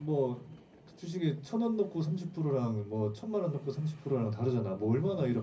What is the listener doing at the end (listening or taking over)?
taking over